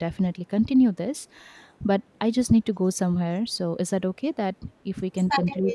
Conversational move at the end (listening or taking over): taking over